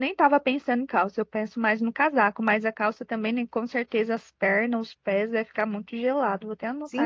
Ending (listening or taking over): taking over